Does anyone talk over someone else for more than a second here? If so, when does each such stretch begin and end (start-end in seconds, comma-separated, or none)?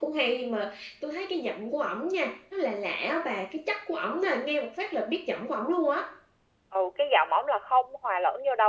none